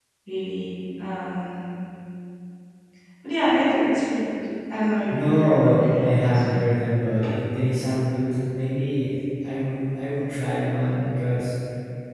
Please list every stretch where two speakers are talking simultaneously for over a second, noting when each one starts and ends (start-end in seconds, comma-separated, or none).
5.1-6.4